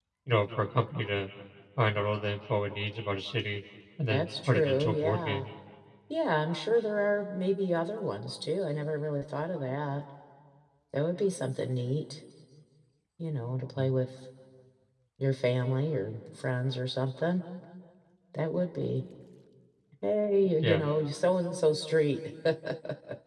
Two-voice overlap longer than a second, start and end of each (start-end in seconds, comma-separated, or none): 4.1-5.4